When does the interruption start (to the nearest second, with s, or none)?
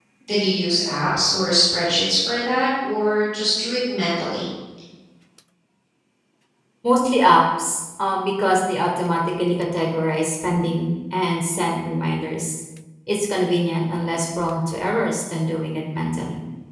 none